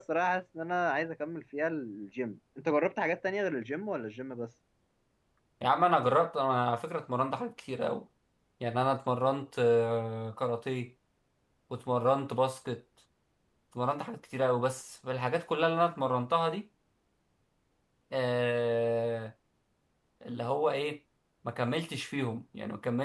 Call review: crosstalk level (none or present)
none